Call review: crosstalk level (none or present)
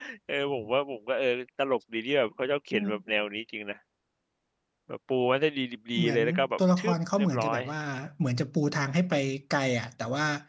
present